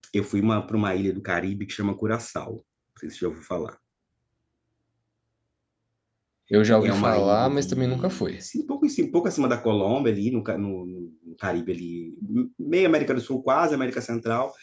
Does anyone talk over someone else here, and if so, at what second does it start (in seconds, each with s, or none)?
6.8 s